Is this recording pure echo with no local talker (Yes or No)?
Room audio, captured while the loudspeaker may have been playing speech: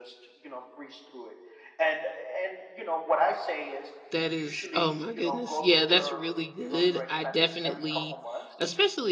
No